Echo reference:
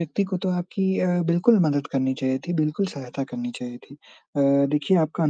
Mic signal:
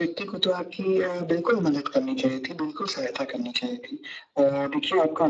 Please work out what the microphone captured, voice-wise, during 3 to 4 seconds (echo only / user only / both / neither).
echo only